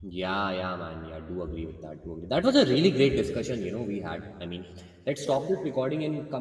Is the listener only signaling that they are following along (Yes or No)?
Yes